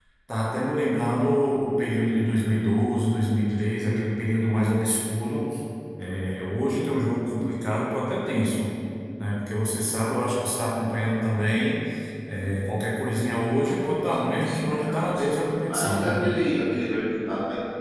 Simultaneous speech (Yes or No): Yes